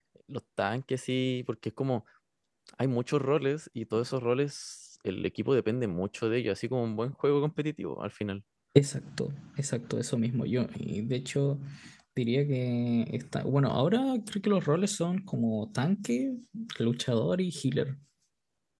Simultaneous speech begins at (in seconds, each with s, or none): none